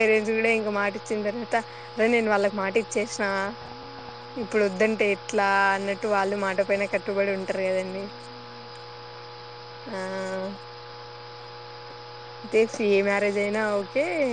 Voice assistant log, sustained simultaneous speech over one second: none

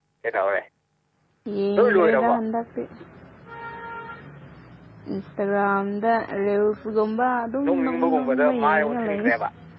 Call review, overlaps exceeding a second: present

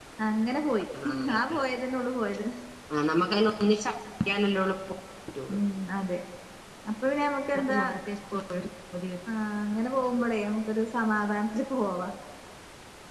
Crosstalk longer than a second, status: none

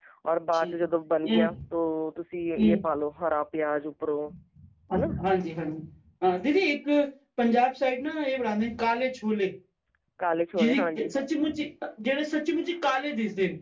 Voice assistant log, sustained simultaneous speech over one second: none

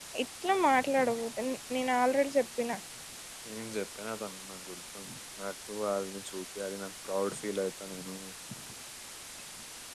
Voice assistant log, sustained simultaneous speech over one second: none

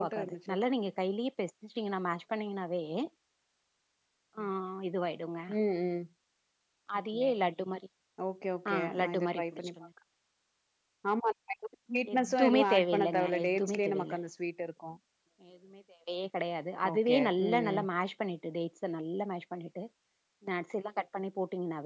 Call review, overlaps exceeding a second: present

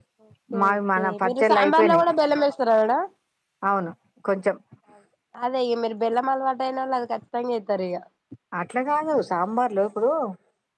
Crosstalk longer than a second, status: present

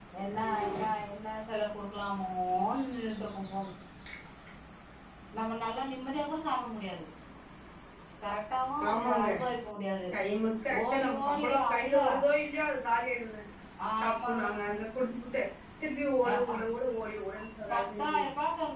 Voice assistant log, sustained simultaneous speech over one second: present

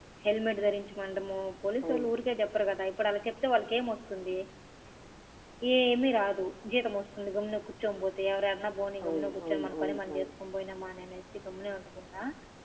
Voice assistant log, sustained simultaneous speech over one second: present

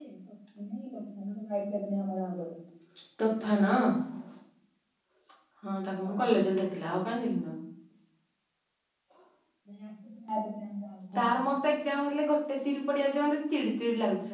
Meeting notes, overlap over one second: none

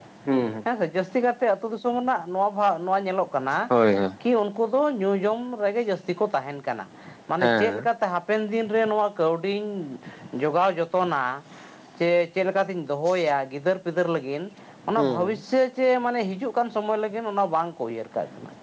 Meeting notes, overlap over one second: none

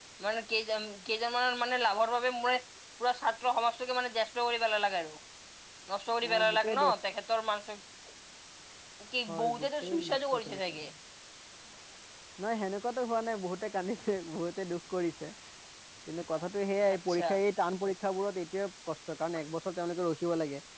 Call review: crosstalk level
present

